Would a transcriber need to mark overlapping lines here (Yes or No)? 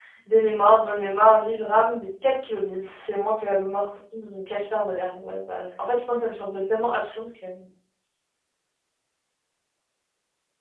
No